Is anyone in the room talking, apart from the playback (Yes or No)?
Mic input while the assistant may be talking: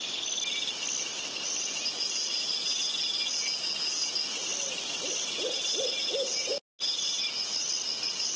No